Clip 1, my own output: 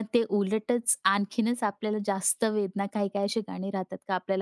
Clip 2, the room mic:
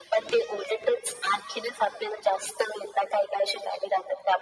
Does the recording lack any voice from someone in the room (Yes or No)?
Yes